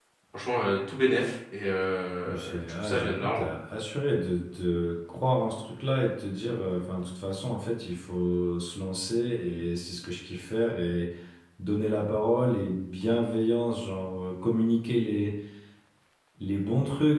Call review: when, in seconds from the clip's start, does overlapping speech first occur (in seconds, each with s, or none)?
2.3 s